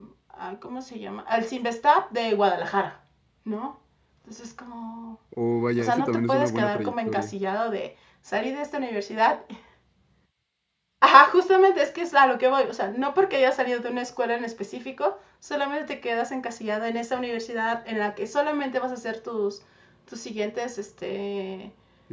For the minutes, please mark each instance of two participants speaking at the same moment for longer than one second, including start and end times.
5.8-7.3

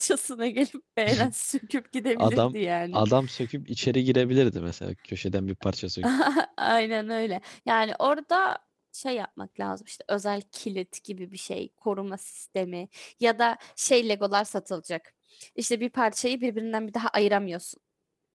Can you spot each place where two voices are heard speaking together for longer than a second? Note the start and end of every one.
none

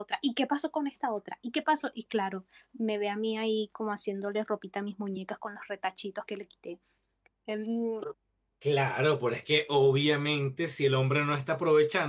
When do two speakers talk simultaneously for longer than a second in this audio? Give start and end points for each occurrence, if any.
none

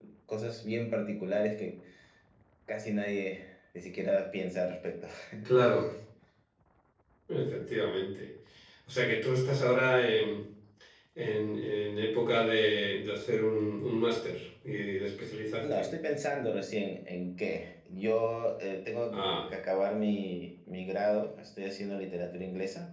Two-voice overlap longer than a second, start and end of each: none

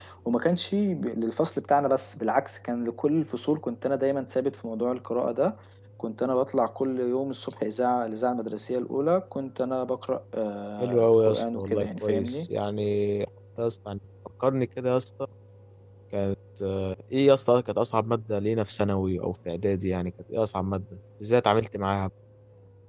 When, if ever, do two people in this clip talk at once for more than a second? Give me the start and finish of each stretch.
10.8-12.5

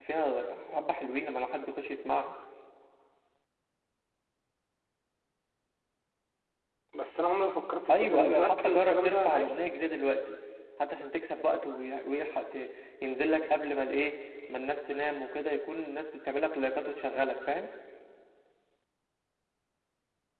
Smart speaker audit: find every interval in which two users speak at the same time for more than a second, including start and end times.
7.9-9.5

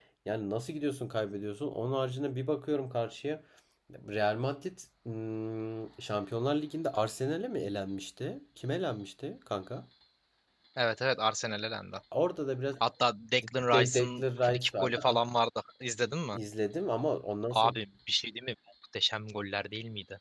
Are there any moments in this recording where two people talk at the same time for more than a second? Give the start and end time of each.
13.7-15.2

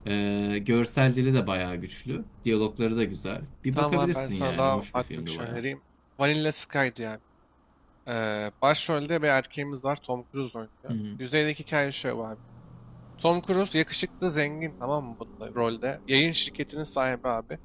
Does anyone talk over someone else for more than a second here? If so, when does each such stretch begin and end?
3.7-5.6

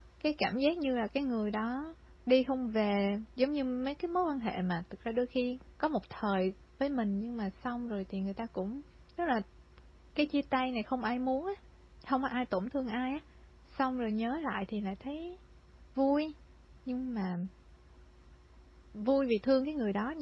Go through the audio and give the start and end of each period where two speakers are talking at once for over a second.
none

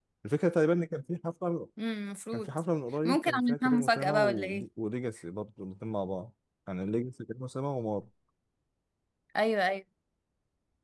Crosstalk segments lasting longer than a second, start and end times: 3.0-4.7

